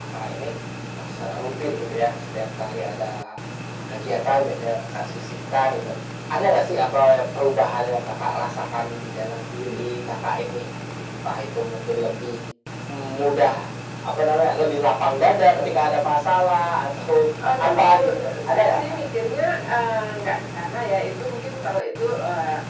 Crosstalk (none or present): present